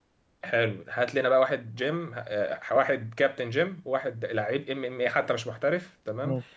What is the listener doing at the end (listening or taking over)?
listening